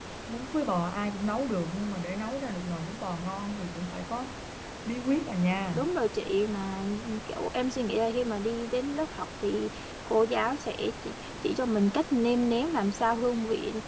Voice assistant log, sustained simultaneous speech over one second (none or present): none